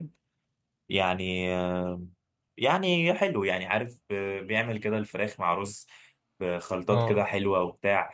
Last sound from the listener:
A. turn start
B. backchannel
B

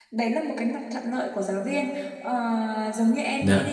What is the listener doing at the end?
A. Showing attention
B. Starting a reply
A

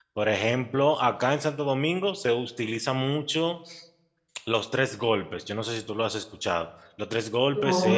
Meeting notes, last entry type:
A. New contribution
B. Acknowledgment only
B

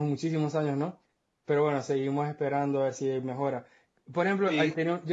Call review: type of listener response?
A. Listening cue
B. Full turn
A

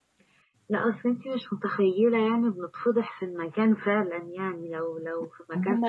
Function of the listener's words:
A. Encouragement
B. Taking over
B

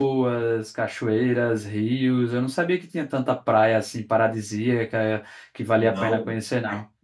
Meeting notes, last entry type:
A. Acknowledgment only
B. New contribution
B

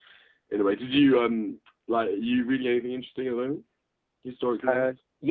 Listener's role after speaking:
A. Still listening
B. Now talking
B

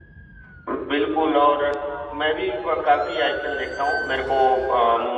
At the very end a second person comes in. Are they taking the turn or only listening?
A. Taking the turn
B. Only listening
B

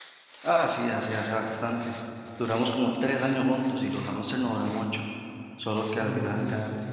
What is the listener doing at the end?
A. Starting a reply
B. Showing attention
B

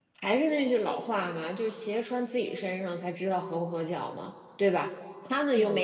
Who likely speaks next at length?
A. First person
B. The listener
A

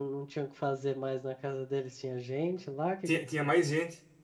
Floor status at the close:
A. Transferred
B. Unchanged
A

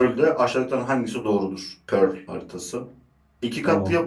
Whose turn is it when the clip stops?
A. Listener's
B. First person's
B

